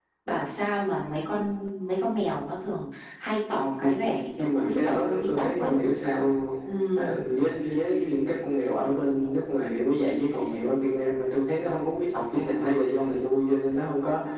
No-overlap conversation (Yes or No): No